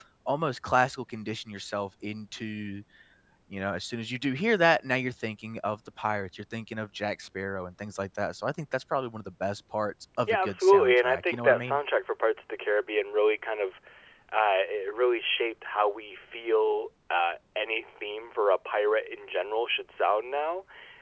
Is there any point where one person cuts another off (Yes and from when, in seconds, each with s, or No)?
Yes, from 10.3 s